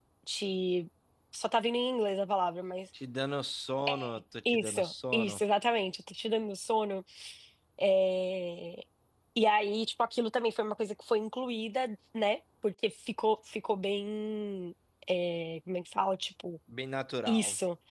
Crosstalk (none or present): present